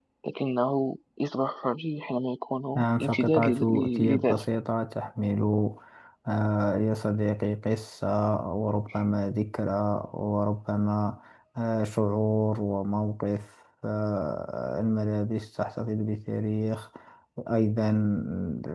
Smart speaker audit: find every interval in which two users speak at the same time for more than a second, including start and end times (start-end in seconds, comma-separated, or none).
2.8-4.4